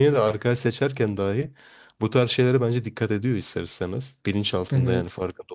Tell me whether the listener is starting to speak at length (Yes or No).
No